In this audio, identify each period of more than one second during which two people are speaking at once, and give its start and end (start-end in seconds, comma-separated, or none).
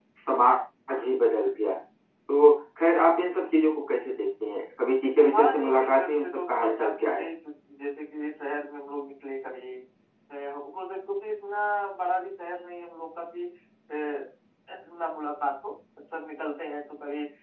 5.3-7.3